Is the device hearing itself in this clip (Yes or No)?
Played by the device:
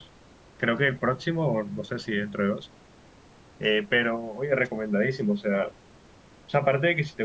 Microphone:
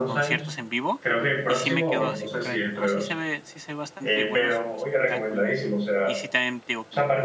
Yes